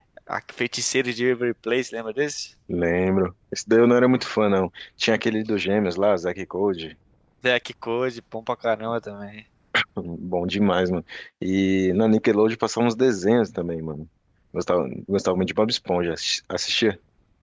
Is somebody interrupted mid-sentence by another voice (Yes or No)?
No